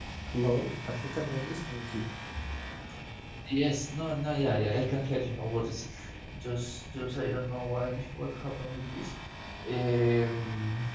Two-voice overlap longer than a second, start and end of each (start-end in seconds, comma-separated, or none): none